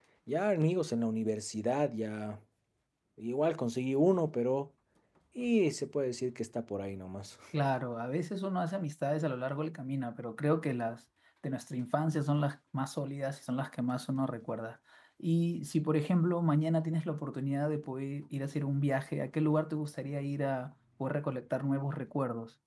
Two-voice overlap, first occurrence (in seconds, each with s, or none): none